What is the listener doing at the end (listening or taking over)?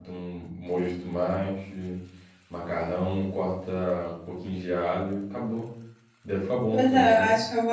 taking over